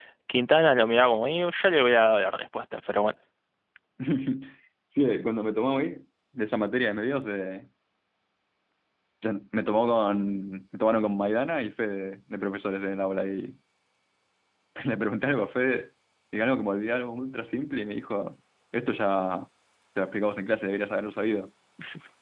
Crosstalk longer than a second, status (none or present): none